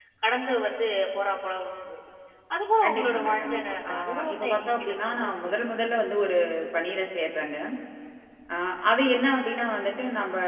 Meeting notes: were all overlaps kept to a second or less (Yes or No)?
No